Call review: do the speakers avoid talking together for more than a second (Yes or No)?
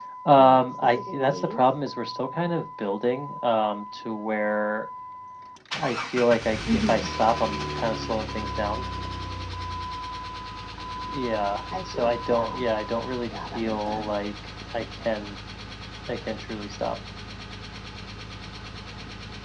No